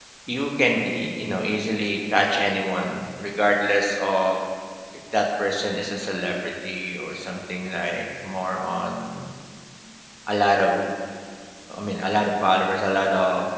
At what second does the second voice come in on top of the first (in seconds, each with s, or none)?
none